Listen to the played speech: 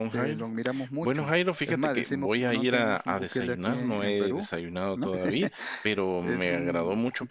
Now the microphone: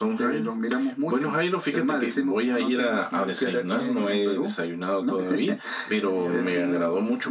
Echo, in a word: present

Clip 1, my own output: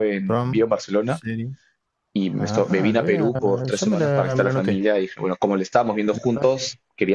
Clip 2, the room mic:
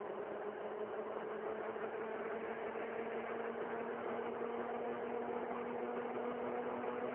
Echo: none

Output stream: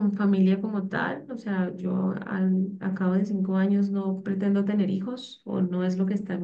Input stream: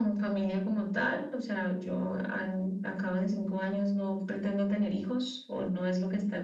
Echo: present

